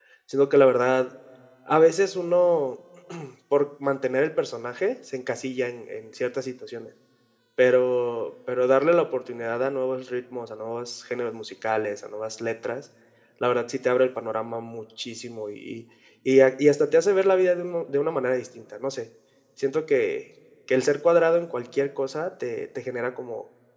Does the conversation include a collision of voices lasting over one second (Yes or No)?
No